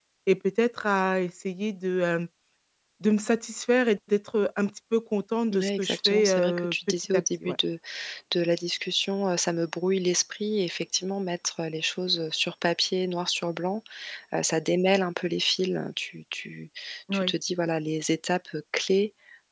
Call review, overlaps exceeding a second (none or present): present